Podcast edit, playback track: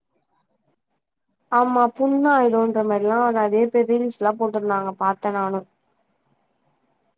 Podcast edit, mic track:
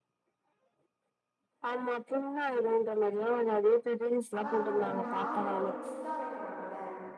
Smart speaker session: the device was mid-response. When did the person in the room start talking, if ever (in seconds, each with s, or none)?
4.4 s